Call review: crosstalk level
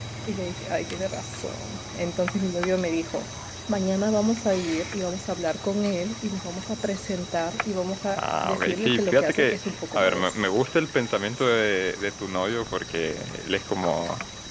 present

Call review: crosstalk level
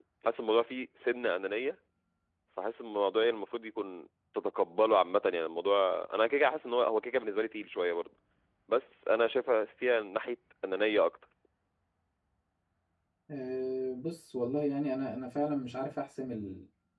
none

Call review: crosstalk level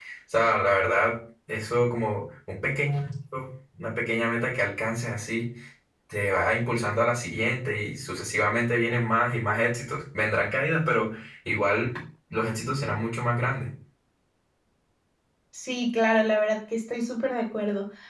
none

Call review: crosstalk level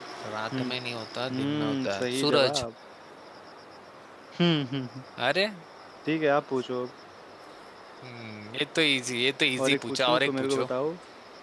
present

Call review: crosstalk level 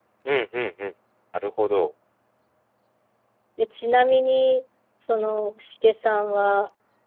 none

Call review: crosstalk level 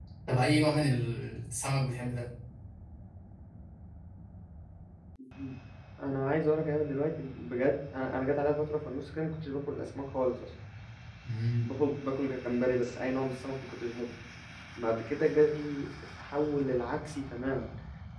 none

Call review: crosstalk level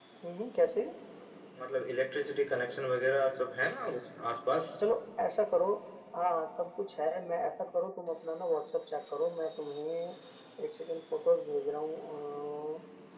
none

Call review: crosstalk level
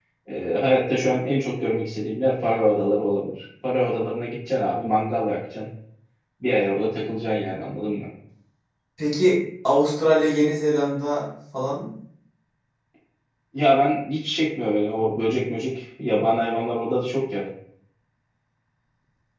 none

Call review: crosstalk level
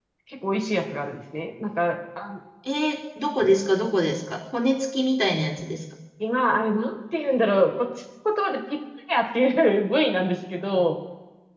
none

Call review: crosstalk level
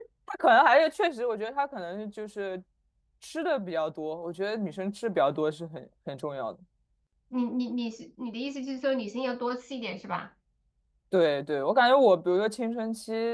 none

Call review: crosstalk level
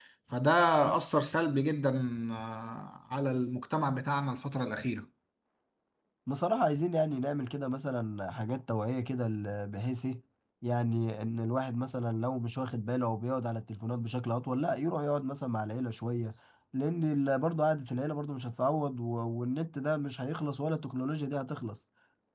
none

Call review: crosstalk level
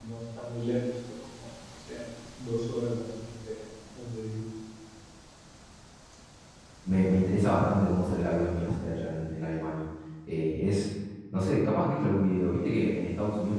none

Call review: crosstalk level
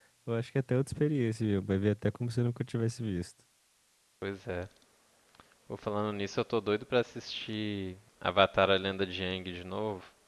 none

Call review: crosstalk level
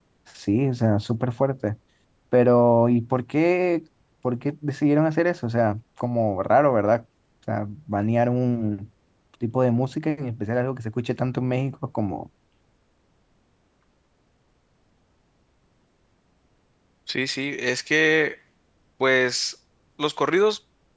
none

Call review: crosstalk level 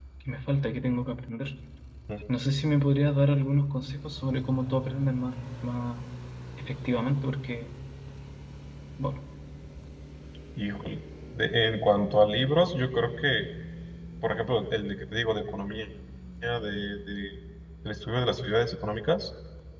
none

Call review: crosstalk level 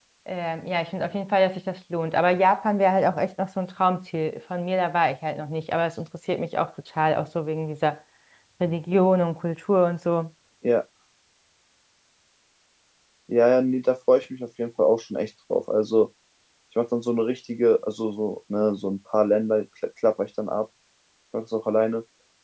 none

